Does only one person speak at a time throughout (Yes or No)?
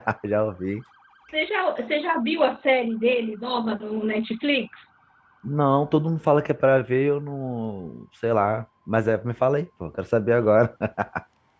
Yes